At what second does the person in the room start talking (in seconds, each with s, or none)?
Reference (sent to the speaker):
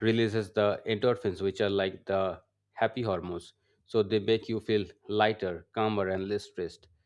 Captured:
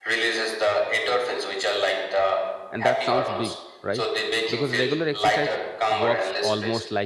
2.7 s